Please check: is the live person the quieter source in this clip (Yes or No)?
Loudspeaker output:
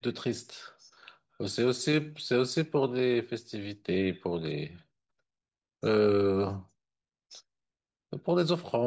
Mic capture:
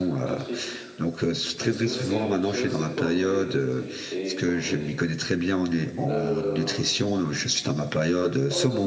No